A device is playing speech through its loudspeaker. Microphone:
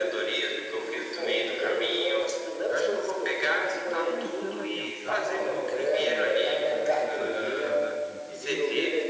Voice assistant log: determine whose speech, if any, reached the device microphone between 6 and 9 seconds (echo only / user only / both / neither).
both